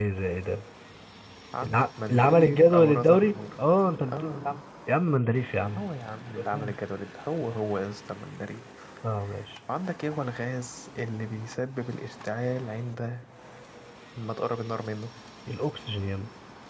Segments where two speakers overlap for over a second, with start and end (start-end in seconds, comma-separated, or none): 1.6-3.3